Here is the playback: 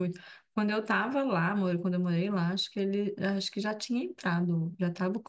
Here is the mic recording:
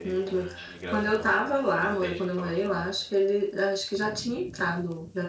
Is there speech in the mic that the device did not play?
Yes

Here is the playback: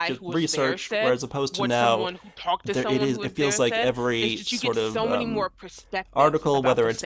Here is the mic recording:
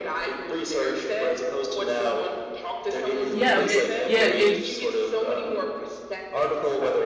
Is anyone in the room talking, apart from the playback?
Yes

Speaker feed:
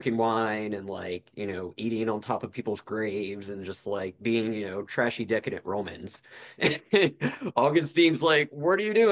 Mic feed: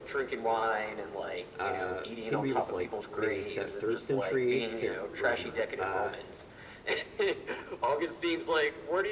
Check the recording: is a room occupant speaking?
Yes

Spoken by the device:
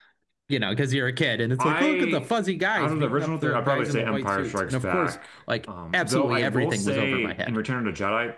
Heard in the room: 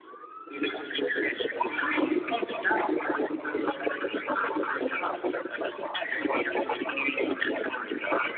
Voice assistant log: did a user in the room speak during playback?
Yes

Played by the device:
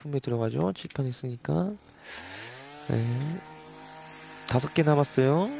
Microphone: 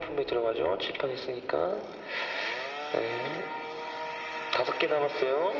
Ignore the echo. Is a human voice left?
No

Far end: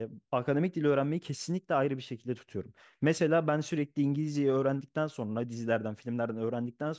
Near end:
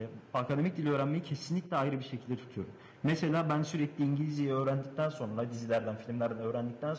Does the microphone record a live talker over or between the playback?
No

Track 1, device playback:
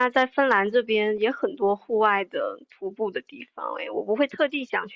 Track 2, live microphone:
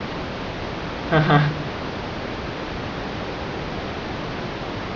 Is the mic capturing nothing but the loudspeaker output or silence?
No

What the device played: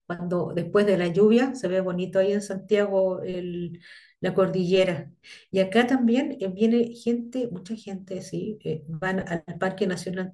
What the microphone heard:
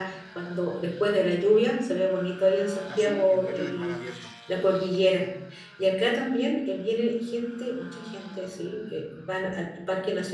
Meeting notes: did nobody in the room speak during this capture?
No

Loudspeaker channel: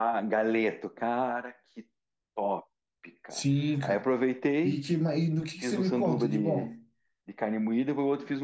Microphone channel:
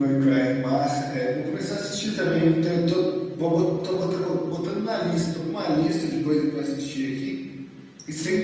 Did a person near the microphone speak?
Yes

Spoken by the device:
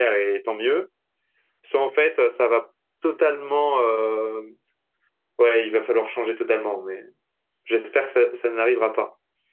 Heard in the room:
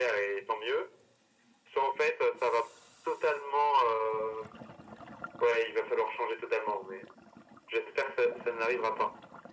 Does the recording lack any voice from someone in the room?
Yes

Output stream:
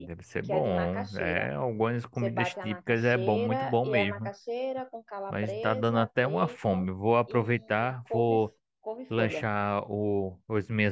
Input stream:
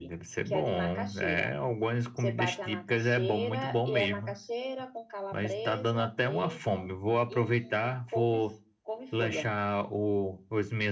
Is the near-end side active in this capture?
No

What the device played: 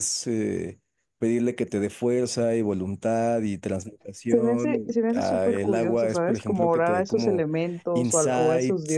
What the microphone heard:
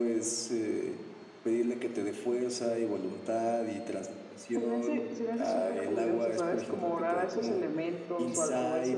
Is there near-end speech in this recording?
No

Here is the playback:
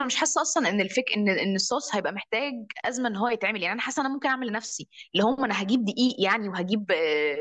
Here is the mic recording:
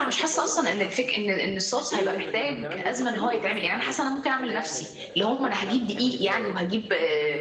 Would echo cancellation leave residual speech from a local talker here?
Yes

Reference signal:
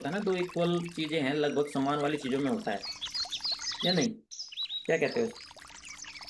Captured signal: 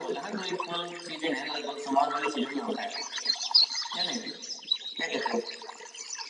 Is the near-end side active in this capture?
No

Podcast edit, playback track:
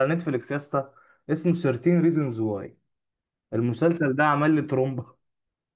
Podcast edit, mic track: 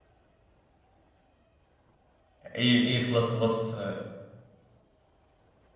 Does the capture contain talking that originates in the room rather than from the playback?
Yes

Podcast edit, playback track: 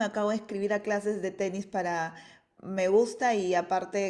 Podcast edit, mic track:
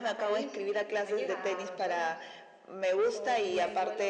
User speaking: Yes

